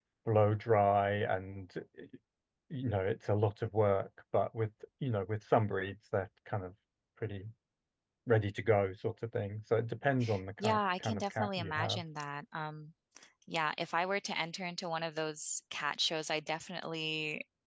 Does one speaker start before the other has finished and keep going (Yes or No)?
Yes